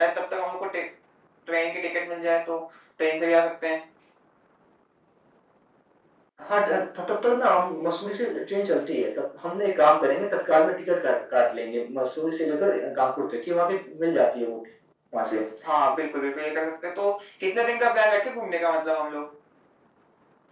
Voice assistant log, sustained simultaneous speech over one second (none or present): none